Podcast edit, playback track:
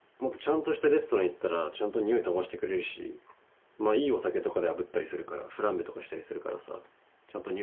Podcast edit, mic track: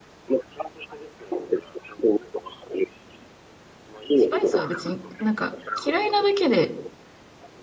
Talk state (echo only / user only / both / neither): both